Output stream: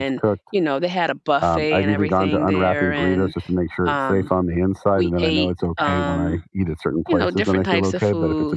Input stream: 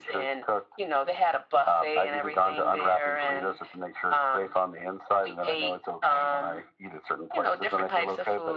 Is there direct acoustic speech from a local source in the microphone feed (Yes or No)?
No